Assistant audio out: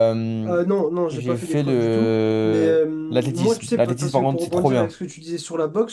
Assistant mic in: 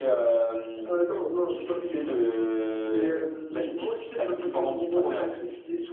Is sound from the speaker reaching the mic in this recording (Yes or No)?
Yes